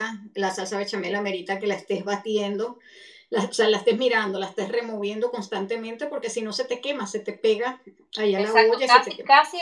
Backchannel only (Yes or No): No